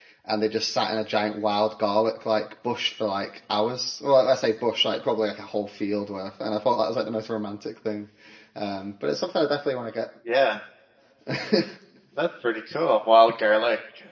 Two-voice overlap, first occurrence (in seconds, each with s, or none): none